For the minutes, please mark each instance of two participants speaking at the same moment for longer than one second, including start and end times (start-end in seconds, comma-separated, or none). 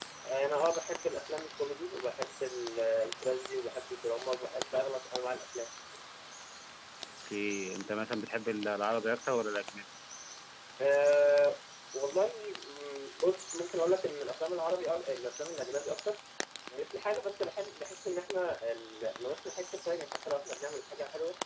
none